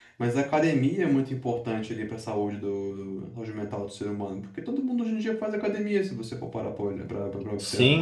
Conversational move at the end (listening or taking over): taking over